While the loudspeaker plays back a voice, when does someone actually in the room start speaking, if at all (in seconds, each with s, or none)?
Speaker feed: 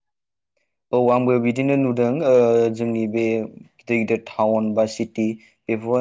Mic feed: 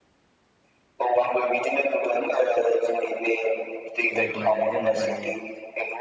4.2 s